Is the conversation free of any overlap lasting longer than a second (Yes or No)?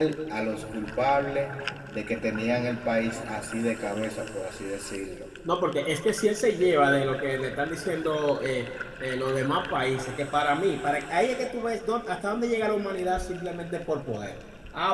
Yes